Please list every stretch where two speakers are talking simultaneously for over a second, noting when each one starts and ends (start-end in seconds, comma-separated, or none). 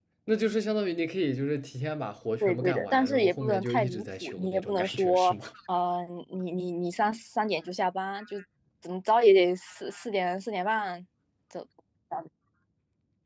2.4-5.3